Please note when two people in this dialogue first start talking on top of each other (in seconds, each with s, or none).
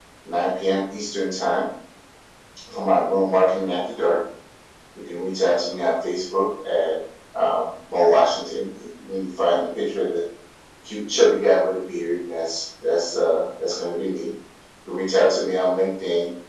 none